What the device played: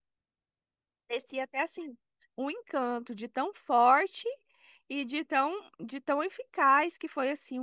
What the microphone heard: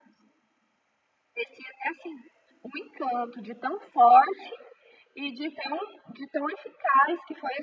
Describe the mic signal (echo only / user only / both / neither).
echo only